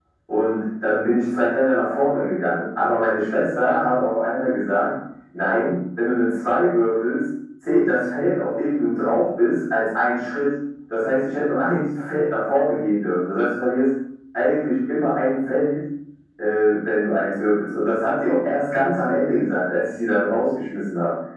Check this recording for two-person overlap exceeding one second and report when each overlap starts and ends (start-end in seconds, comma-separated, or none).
none